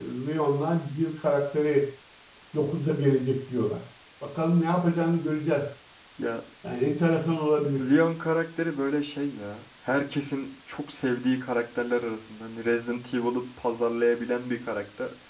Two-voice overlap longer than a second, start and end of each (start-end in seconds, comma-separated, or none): none